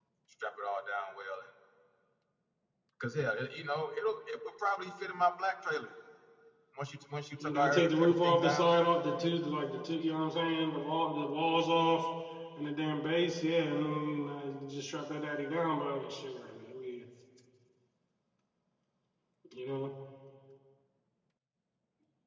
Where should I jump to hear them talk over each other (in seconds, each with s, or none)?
7.4 s